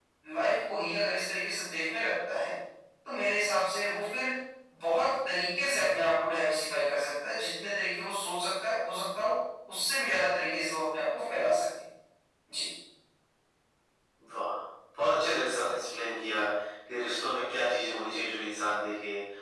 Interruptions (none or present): none